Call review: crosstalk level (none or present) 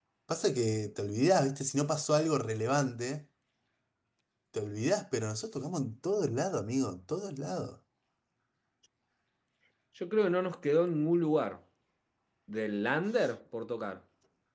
none